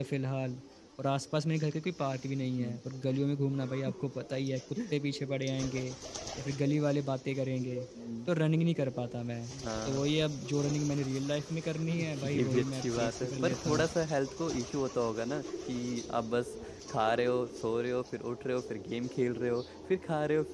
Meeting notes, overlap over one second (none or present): present